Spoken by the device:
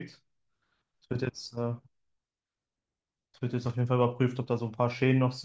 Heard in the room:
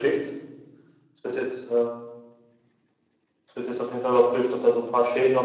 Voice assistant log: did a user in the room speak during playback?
No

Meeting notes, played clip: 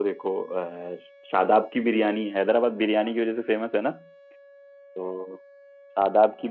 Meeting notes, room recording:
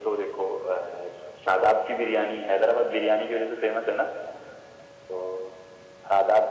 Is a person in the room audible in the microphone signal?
No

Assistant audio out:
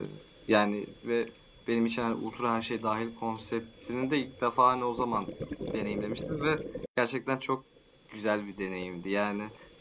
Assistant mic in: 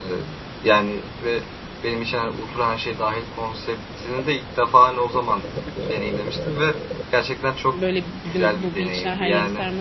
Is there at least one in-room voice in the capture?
Yes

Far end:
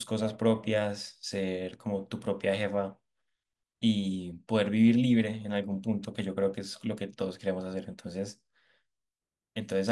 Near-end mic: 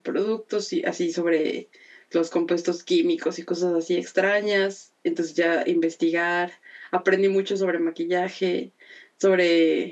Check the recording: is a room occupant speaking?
Yes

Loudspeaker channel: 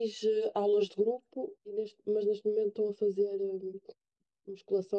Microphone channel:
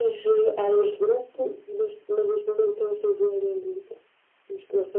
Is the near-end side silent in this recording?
Yes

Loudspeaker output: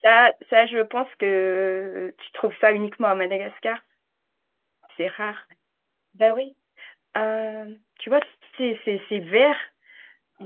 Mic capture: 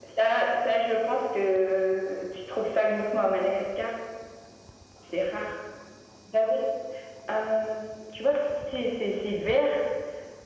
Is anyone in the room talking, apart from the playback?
No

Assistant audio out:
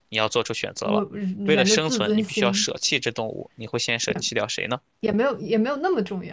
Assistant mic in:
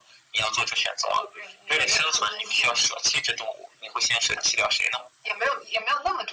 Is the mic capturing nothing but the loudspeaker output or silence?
Yes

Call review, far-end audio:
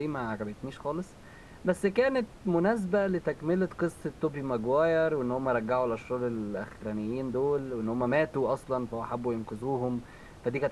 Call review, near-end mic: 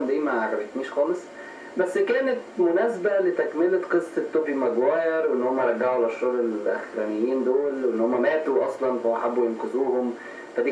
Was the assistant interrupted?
No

